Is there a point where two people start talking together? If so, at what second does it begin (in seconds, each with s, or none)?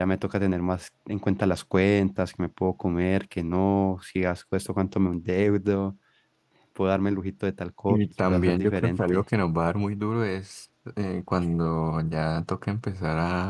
7.9 s